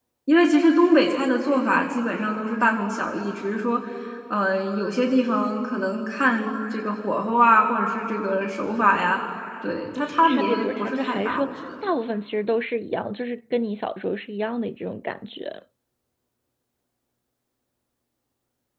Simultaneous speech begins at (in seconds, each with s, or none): 10.2 s